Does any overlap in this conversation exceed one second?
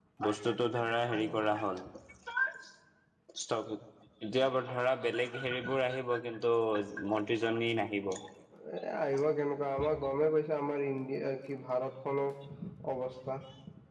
No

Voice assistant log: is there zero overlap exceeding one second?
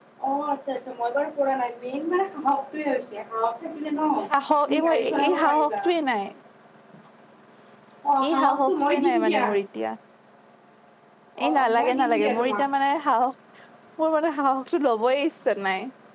No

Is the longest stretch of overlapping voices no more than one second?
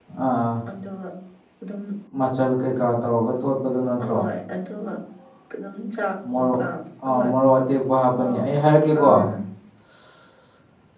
Yes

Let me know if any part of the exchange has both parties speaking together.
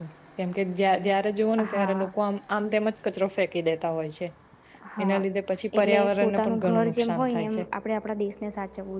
Yes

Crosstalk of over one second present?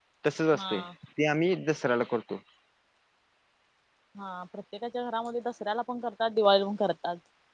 No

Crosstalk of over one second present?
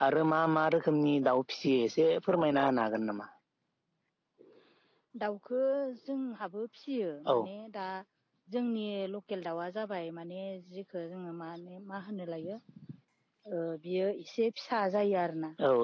No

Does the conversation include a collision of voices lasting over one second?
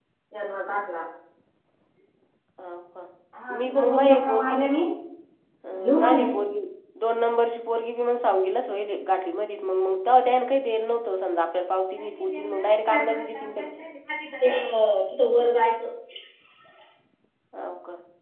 Yes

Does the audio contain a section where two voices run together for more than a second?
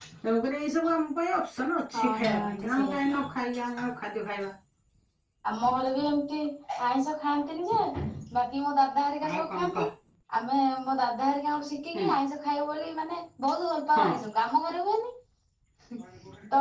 Yes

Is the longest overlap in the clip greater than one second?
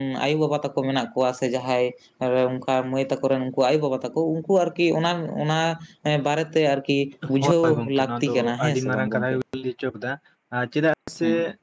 Yes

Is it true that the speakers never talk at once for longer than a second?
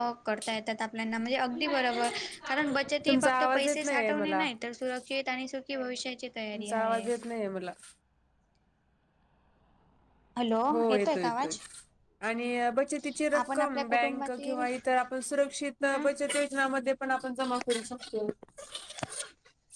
No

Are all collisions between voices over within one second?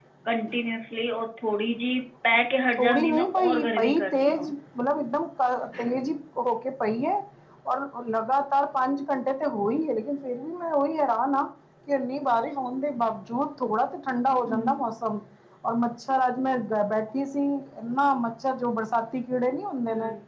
No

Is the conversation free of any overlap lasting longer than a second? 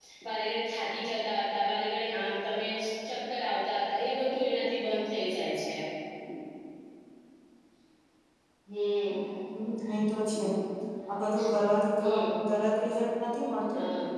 Yes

